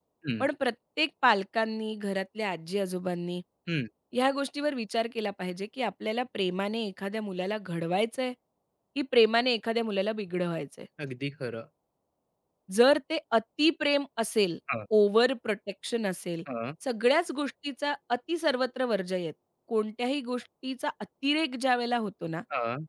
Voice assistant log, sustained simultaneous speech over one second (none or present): none